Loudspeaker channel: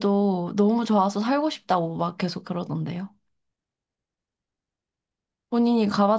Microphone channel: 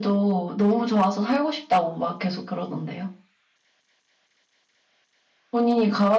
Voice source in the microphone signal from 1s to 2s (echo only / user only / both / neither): echo only